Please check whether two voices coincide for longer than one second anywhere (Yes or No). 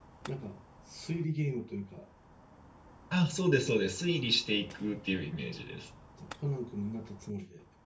No